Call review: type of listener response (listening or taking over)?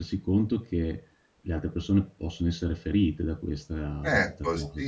taking over